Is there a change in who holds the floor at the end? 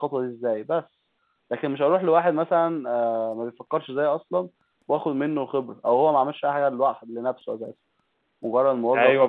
Yes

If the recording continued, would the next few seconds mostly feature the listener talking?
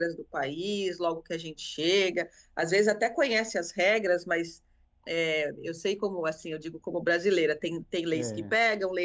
No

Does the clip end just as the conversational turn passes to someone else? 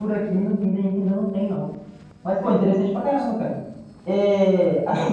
No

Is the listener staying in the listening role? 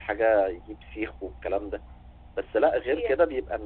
Yes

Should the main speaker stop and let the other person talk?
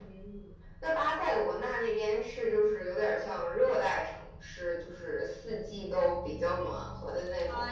Yes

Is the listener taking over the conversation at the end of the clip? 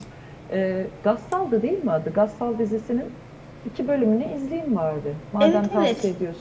Yes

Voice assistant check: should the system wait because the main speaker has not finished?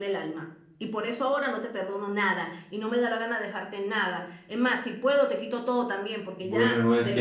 No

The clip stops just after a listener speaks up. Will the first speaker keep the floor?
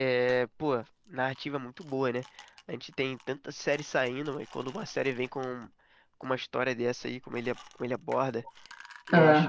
Yes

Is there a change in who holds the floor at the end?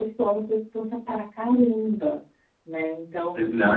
Yes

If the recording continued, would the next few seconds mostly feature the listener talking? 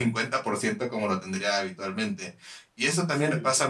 No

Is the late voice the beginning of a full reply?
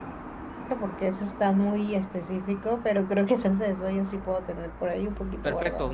Yes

